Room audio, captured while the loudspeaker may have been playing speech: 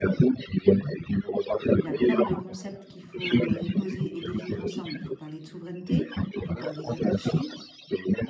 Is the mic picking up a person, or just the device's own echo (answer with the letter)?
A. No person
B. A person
B